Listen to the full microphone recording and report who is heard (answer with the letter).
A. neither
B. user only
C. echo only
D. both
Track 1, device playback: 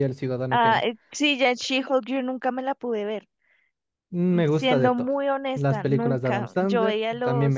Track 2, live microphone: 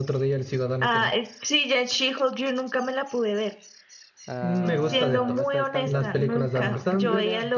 D